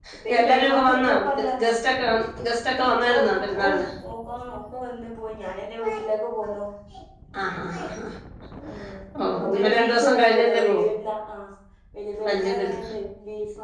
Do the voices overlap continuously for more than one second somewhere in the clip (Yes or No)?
Yes